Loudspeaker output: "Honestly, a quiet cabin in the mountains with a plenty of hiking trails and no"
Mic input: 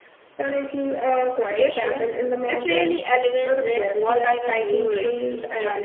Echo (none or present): present